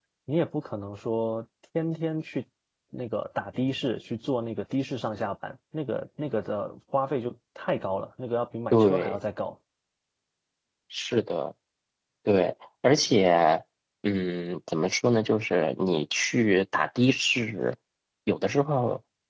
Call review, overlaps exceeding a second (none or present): none